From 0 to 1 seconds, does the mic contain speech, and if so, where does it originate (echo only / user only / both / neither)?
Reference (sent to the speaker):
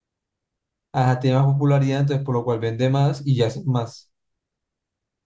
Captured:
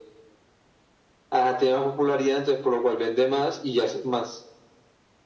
neither